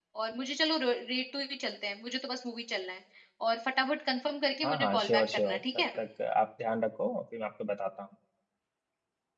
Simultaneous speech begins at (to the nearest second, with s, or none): 5 s